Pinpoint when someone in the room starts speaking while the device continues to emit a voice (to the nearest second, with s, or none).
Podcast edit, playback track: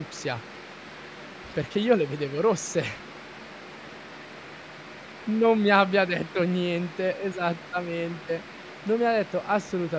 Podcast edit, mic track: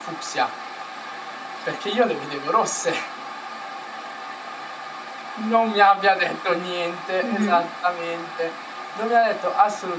7 s